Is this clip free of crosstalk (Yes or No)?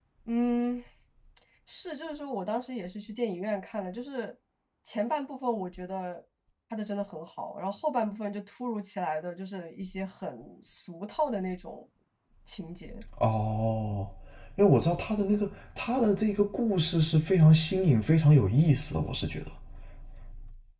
Yes